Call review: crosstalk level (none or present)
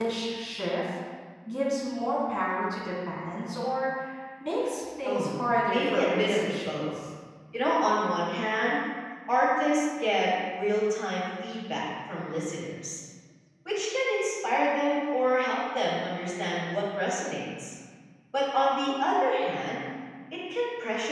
present